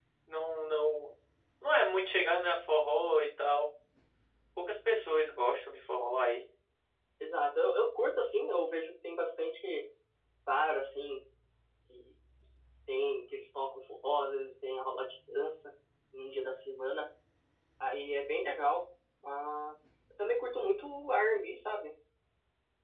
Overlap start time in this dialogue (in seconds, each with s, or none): none